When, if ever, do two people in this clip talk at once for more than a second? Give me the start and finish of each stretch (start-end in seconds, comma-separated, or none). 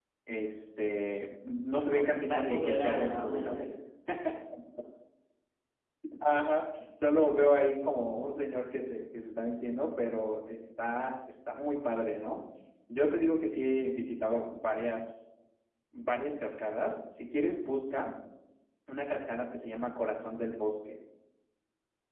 1.7-3.7